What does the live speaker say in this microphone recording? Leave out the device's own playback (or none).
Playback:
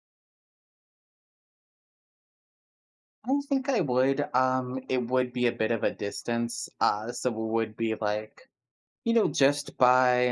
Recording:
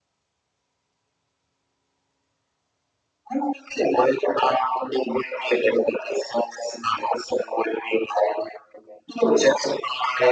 none